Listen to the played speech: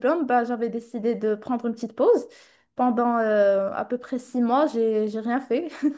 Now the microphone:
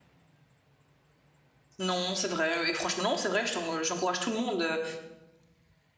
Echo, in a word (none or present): none